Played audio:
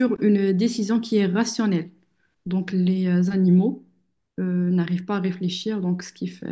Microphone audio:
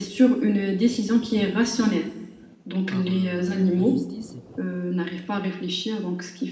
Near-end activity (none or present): present